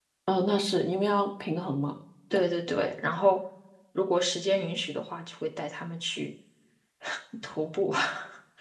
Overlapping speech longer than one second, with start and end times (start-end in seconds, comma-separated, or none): none